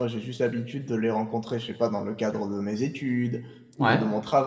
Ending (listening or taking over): listening